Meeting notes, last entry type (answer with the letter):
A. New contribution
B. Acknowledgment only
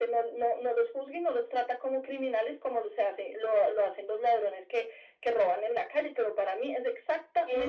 A